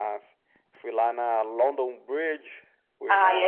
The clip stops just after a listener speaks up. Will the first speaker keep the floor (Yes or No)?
No